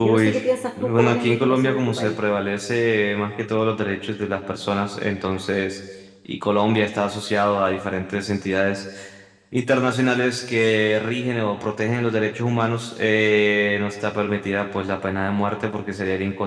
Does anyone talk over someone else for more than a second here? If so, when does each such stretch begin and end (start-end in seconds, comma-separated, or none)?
0.8-2.2